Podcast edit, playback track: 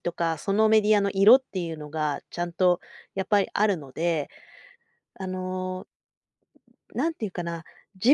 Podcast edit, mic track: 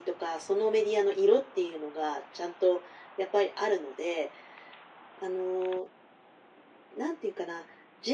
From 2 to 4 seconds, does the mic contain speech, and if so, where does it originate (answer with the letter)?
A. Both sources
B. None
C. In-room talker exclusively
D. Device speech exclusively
D